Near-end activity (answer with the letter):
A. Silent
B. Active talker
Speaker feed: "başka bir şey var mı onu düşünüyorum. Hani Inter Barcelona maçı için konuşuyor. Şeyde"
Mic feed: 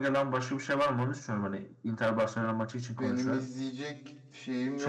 B